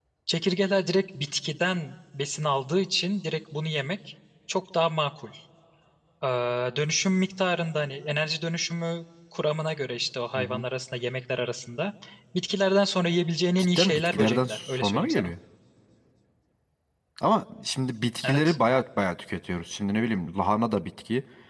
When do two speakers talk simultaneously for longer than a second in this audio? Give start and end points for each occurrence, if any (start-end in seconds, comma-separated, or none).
13.6-15.3